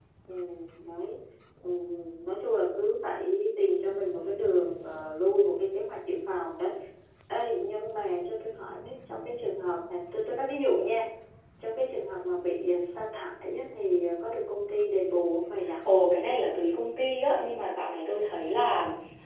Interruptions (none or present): none